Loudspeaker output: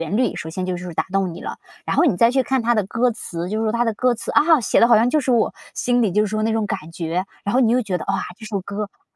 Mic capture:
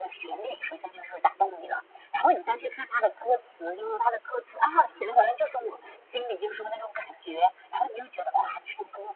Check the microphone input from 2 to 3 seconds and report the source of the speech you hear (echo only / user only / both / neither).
echo only